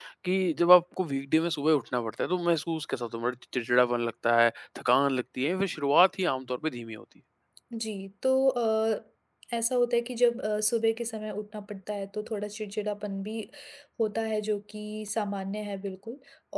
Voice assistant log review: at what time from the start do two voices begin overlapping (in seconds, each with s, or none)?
none